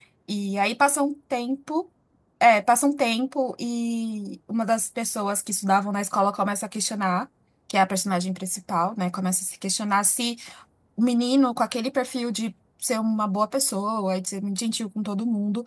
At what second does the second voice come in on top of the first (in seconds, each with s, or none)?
none